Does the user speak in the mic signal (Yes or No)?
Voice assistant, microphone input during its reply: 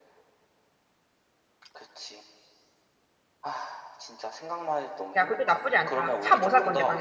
Yes